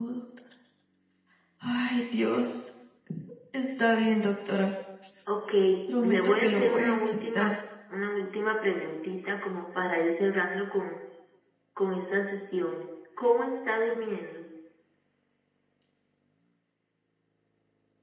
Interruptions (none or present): present